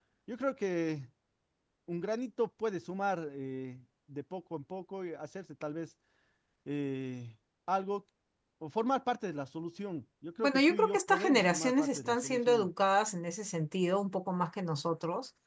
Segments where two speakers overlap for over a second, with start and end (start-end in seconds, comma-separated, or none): 10.4-12.7